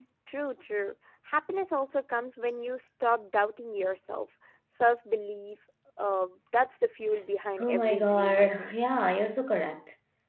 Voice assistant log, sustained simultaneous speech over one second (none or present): present